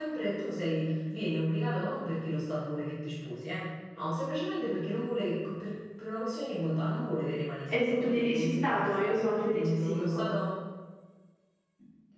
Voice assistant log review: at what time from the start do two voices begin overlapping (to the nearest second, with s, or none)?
8 s